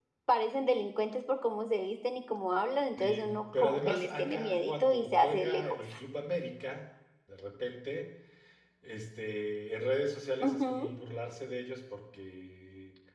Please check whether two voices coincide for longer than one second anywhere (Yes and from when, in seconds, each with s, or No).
Yes, from 3.0 s